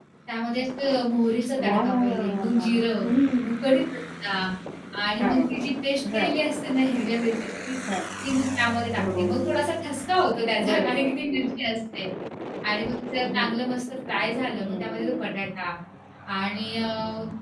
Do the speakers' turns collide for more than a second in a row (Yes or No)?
Yes